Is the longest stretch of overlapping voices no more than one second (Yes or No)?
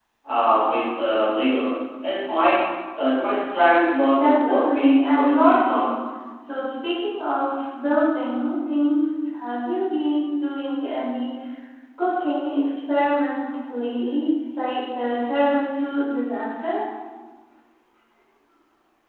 No